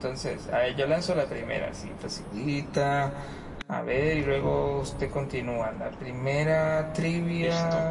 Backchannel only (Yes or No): Yes